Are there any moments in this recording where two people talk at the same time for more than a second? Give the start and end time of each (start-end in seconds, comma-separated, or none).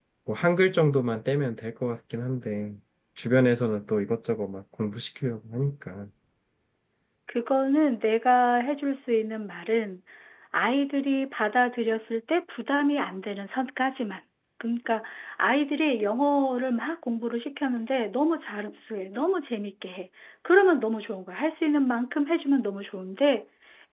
none